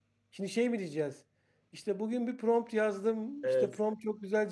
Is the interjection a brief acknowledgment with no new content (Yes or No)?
Yes